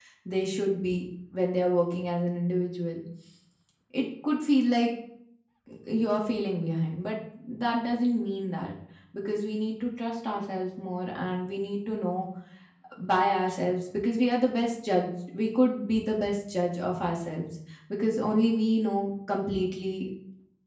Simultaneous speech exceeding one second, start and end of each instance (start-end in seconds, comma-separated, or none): none